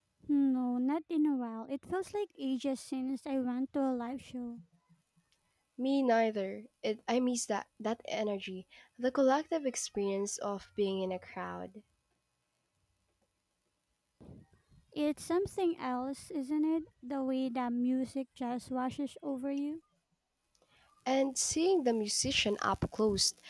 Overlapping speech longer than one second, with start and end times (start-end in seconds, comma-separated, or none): none